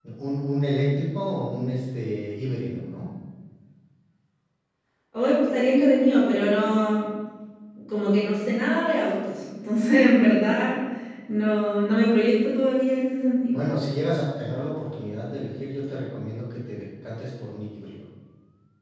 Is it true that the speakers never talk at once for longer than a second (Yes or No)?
Yes